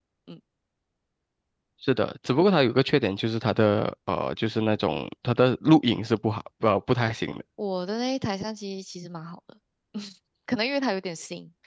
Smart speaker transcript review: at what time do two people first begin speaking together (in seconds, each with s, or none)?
none